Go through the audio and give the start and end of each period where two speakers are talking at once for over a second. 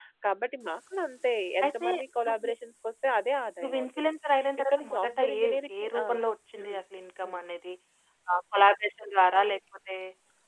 4.6-6.0

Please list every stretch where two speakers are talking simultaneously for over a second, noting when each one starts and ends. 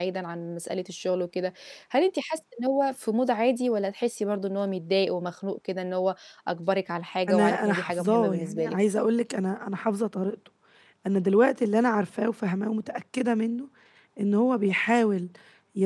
7.3-8.8

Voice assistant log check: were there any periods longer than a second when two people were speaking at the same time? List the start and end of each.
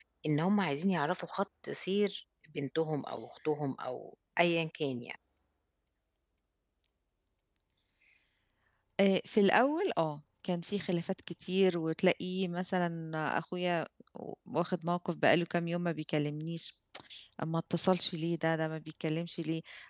none

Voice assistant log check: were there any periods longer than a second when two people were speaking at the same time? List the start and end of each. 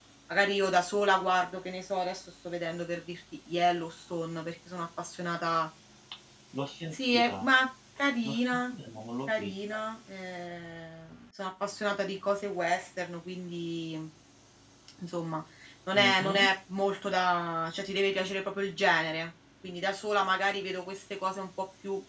none

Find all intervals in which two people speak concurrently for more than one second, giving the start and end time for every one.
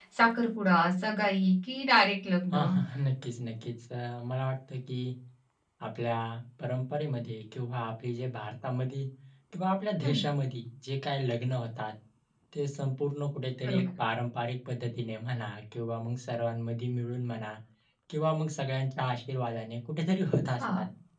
none

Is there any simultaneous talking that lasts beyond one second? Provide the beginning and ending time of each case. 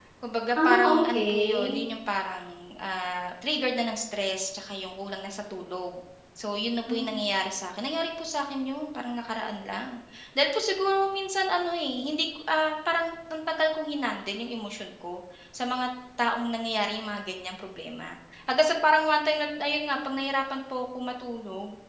0.6-1.8

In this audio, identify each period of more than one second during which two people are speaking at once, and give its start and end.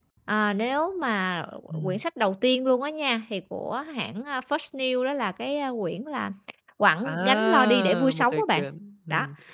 7.0-8.6

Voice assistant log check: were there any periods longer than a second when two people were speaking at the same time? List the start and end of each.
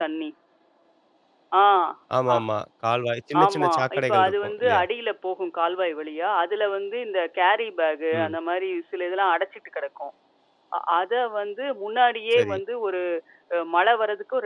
3.4-4.8

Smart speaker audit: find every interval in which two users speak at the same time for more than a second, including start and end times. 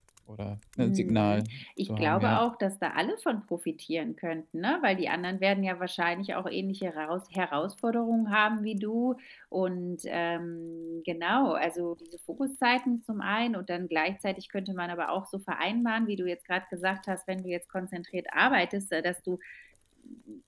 0.8-2.4

